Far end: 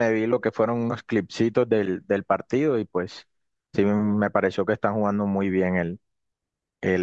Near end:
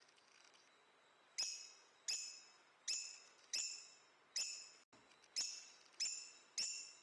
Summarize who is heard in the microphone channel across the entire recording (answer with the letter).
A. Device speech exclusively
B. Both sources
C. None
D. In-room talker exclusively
C